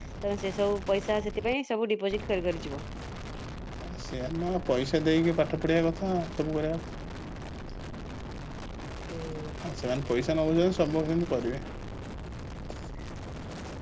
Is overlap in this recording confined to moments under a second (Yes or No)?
Yes